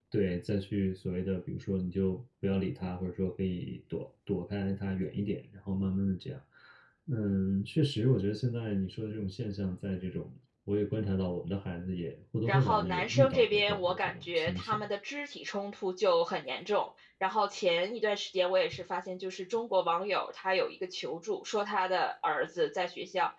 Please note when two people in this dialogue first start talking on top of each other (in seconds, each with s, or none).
12.5 s